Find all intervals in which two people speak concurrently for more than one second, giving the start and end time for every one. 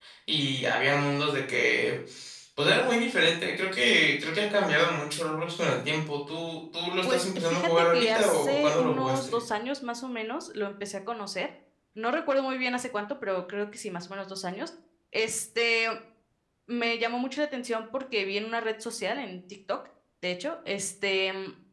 7.0-9.4

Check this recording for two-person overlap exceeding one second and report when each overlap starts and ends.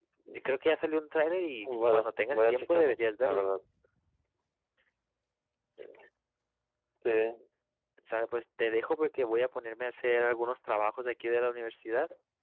1.7-3.4

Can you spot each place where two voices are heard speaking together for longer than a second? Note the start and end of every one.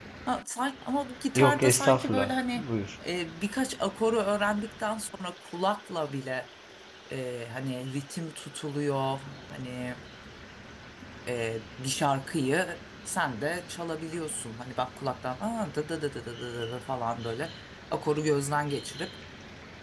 1.4-2.6

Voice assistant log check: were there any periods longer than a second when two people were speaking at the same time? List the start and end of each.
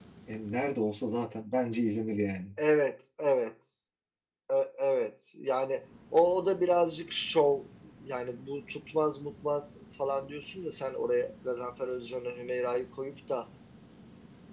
none

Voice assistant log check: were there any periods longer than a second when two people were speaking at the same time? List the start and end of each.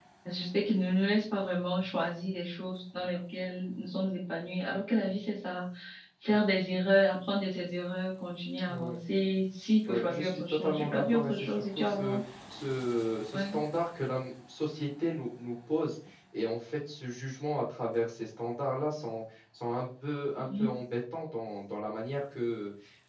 9.9-12.2

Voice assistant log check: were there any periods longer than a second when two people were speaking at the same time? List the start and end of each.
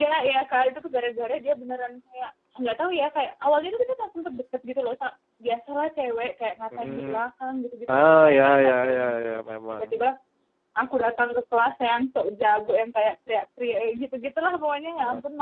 7.9-9.2

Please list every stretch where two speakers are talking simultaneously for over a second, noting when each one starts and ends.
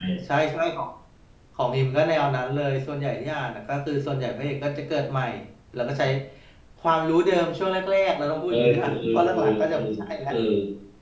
8.5-9.9

